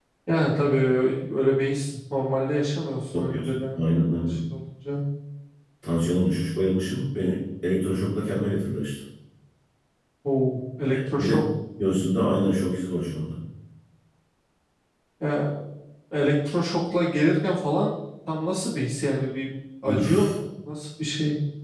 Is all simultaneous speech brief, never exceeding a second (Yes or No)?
No